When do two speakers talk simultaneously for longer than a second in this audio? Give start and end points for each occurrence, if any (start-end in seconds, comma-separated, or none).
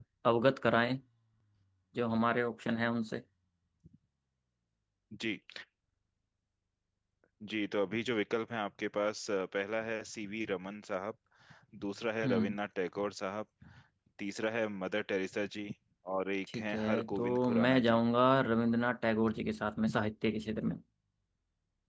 16.5-18.0